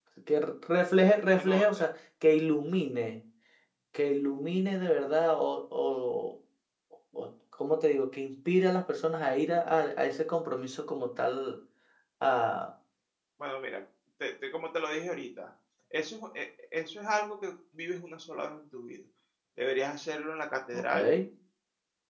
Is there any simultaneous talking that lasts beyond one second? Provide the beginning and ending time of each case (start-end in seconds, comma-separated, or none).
none